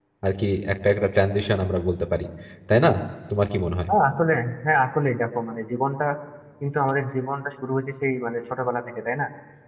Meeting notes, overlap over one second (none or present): none